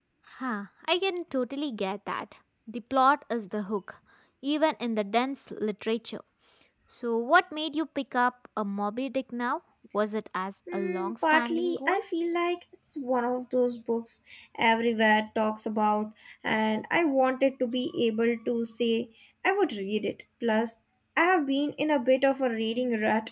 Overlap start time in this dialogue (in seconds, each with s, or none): 10.7 s